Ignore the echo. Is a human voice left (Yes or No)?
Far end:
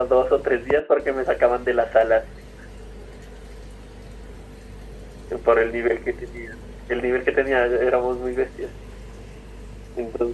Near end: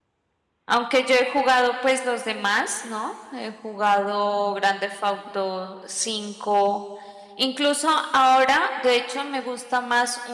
Yes